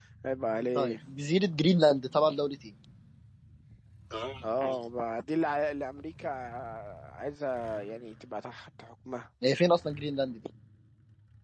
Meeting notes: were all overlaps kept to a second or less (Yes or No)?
Yes